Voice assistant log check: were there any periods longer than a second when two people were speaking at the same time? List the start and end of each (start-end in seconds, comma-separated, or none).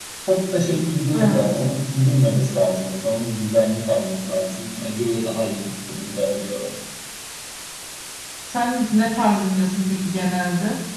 none